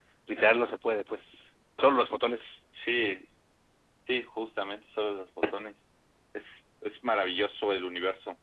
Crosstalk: none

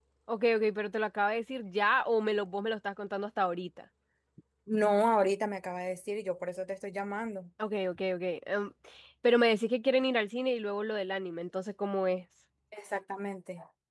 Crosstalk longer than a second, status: none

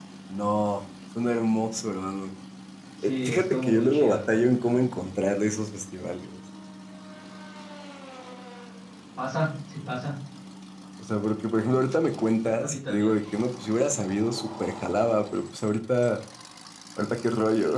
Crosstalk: present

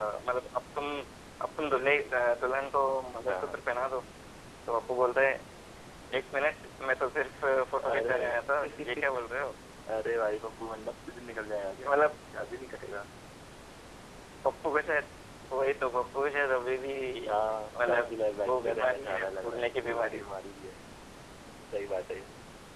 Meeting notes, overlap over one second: present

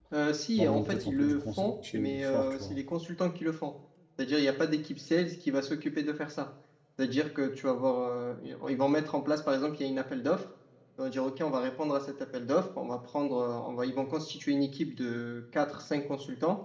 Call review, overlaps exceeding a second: present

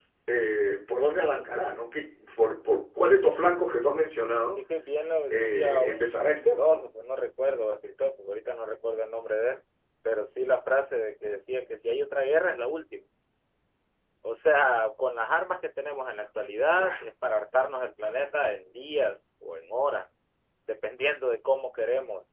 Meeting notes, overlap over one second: present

